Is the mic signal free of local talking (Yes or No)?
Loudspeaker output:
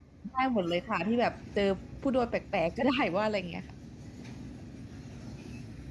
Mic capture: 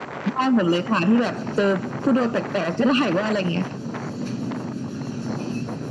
Yes